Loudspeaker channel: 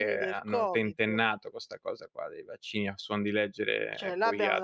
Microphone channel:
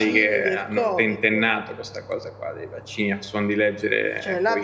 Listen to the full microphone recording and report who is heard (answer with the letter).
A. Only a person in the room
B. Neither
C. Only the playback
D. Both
C